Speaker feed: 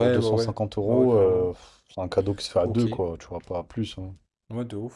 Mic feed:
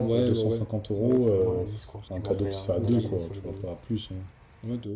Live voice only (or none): pour aller à Nice, quoi. Je demanderais euh, d'aller à Nice au lieu de